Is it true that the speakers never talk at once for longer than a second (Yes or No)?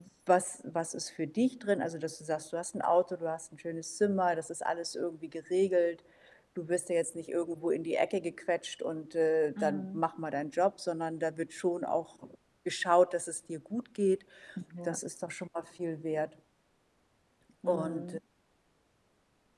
Yes